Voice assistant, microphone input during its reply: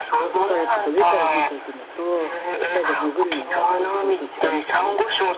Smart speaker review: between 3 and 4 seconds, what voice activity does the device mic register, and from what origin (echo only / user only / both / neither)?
both